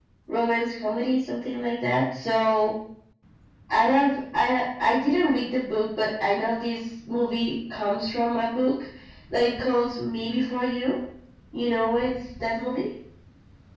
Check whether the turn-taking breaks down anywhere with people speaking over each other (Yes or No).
No